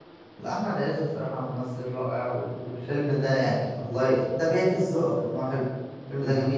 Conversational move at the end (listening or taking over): taking over